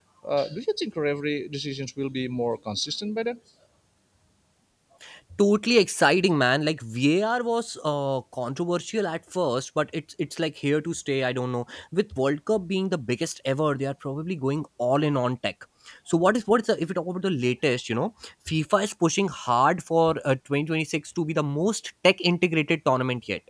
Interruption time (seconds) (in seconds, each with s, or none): none